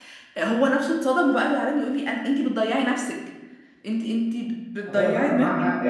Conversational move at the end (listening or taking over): taking over